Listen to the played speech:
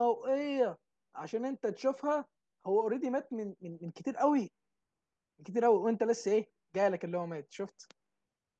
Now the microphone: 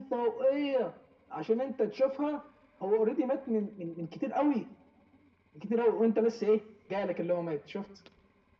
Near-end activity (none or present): none